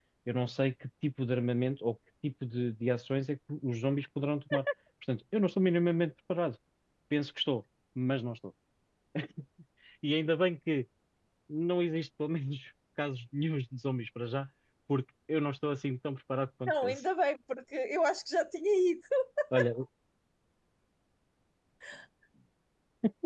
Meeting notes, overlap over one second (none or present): none